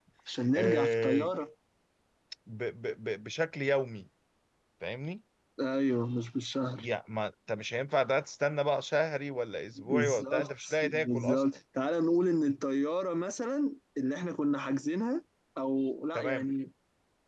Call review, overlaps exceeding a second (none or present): present